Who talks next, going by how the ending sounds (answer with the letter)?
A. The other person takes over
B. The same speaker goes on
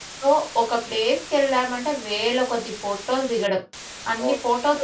B